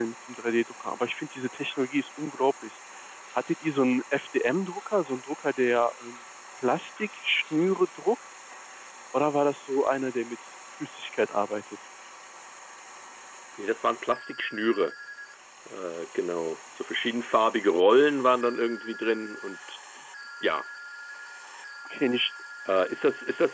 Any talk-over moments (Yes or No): No